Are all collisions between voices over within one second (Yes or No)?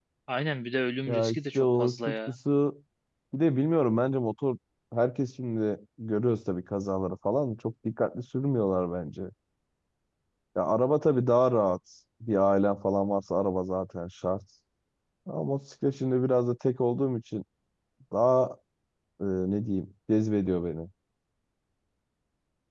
No